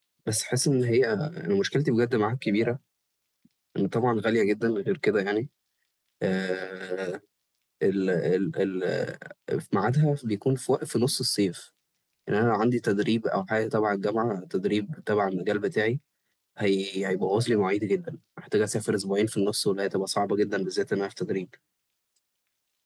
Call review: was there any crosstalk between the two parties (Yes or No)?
No